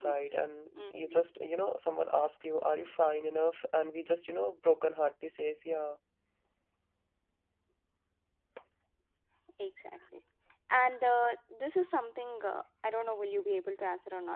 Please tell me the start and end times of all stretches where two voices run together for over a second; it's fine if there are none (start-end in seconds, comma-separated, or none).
none